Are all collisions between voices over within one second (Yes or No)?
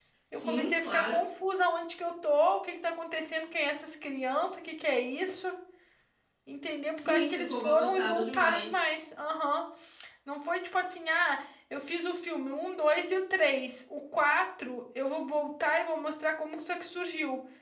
No